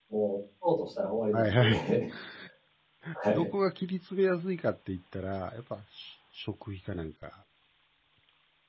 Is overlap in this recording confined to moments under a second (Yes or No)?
Yes